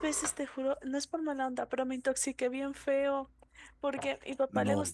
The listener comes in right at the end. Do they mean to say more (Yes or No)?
No